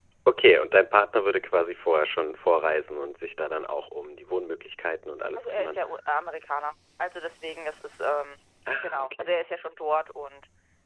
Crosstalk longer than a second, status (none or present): none